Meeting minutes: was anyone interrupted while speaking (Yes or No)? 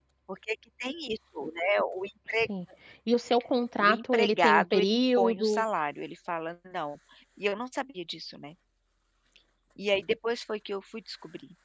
Yes